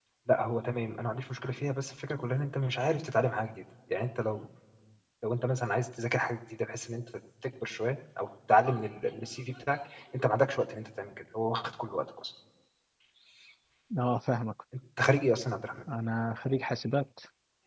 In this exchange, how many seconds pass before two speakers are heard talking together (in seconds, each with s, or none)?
none